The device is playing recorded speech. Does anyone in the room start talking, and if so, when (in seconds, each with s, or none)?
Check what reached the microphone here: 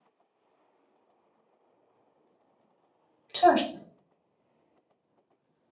3.3 s